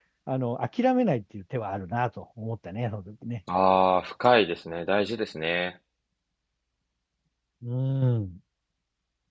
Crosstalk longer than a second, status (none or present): none